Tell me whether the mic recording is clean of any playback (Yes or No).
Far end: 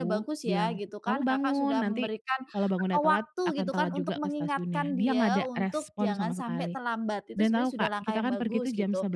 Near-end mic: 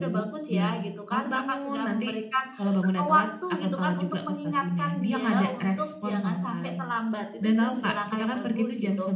No